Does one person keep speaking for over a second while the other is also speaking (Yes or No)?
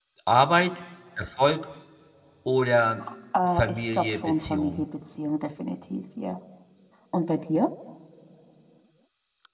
Yes